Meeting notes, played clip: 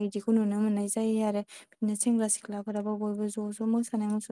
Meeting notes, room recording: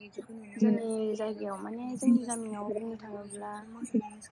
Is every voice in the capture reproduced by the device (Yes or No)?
No